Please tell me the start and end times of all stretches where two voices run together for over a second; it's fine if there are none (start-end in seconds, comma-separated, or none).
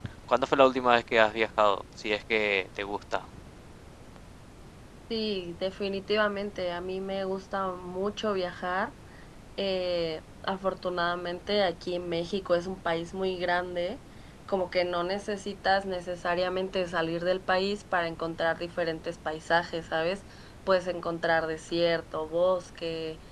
none